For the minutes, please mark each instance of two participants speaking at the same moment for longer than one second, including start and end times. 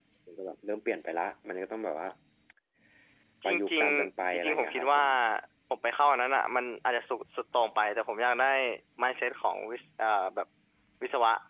3.4-5.0

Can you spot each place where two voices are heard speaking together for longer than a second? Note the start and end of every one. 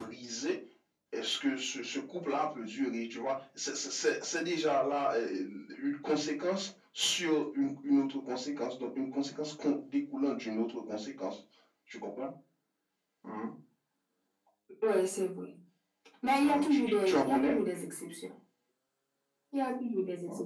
16.3-17.5

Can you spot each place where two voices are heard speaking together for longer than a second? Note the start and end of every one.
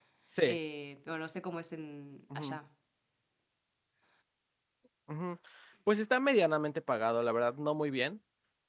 none

